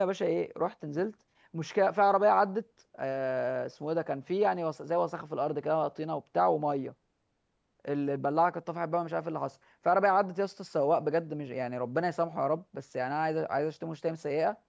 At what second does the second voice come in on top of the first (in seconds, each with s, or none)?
none